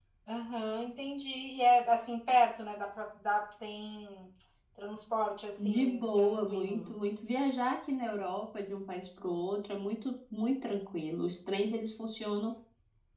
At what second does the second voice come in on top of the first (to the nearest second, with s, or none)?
6 s